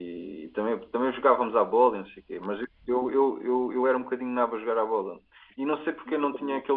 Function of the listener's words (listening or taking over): listening